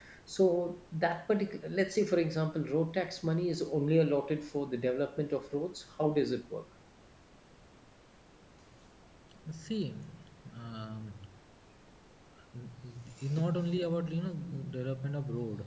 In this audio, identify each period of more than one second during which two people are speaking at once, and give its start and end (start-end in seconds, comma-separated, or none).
none